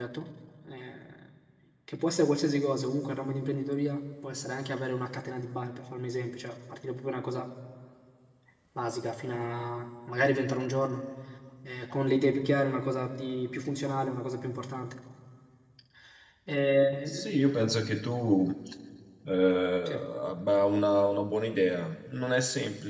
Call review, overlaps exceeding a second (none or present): none